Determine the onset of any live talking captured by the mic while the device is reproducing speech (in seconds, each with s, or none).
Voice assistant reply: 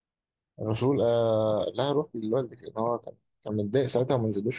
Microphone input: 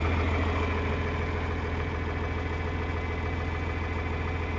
none